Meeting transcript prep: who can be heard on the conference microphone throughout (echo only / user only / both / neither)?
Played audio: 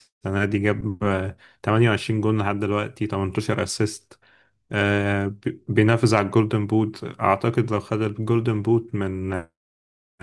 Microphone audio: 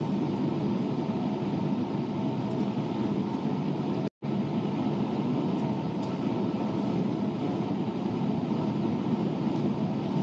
neither